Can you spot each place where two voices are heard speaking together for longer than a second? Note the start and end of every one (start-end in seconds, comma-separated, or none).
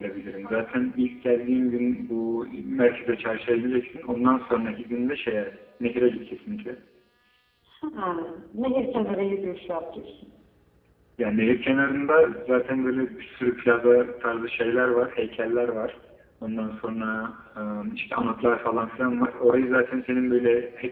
none